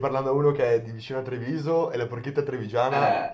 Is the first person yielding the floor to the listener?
Yes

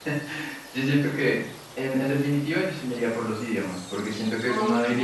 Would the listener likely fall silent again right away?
Yes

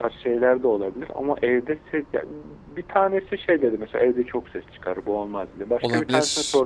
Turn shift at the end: No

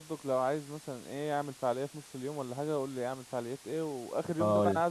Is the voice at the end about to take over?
No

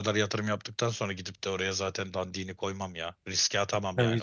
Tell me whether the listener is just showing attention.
No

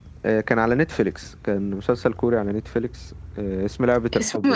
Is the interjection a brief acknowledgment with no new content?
Yes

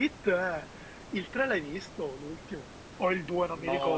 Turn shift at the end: Yes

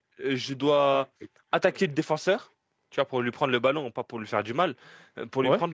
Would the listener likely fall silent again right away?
Yes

